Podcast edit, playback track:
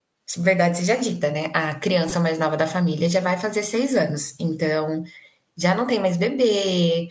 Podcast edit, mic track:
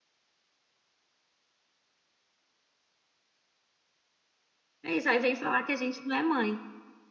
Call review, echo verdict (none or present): none